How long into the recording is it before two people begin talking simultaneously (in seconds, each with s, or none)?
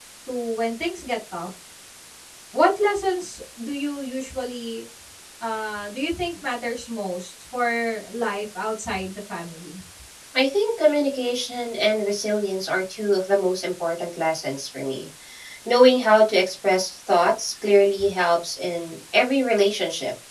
none